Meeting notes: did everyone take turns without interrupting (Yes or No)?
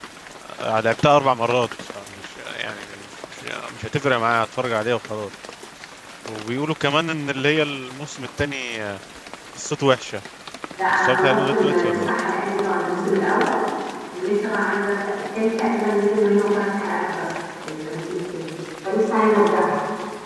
No